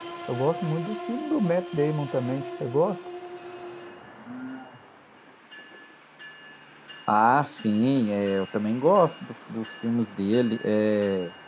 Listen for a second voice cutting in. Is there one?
No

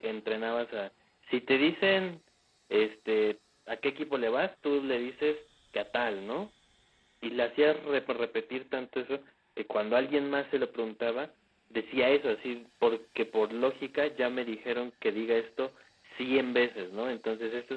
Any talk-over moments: No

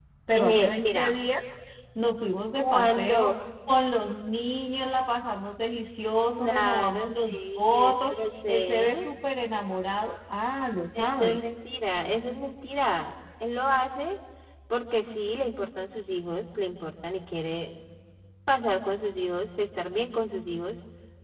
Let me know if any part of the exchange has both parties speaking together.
Yes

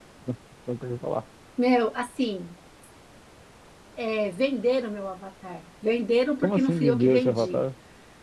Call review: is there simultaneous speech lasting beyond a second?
Yes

